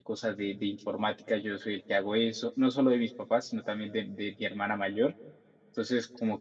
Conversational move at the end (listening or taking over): listening